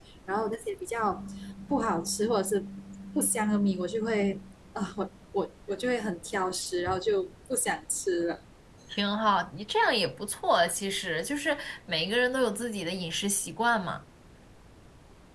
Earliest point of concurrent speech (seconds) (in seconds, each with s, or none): none